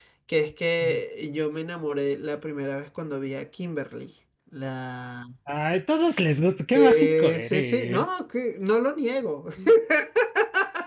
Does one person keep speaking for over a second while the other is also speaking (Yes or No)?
Yes